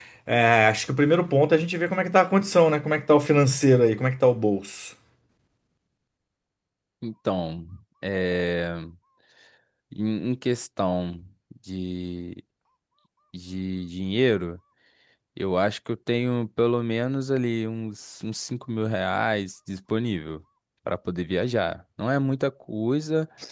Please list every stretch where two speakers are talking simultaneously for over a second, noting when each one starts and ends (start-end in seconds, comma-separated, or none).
none